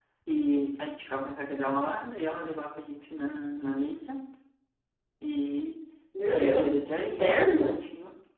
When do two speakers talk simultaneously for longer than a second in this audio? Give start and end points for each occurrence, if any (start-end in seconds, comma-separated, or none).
6.3-7.8